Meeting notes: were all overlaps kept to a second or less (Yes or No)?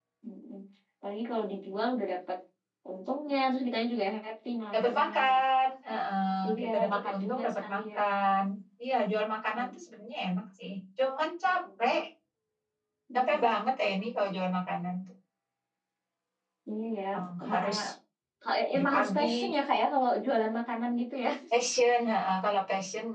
No